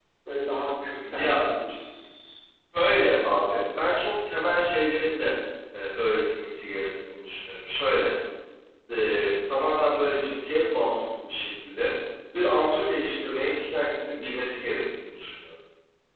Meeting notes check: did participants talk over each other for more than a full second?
No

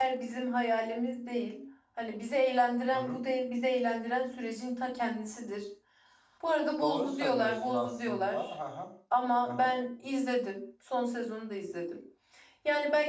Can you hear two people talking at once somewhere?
Yes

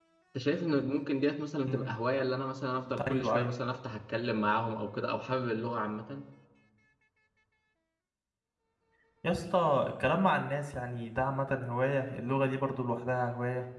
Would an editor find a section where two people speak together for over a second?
No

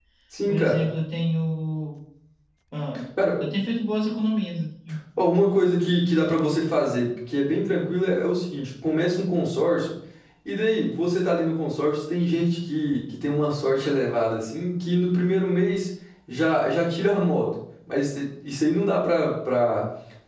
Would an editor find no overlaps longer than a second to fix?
Yes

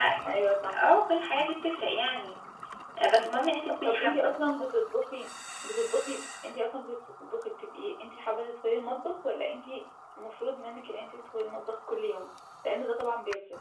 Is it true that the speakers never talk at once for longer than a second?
Yes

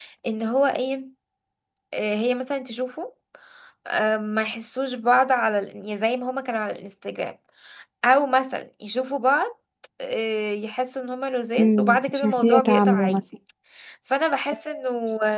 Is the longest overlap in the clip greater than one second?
Yes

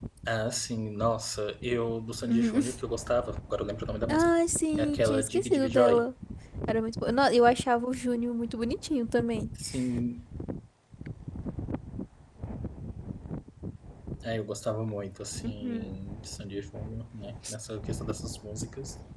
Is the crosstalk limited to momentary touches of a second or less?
No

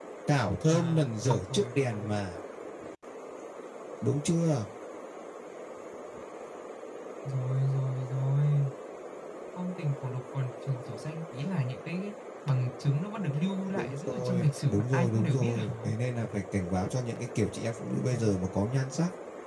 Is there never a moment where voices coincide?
No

